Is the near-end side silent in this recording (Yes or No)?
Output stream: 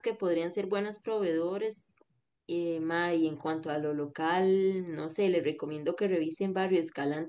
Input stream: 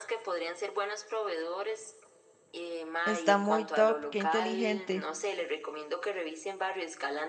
No